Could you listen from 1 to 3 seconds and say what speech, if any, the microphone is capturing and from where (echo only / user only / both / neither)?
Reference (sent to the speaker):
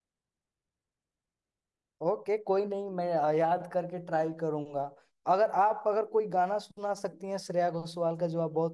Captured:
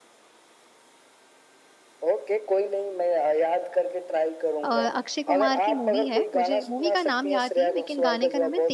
echo only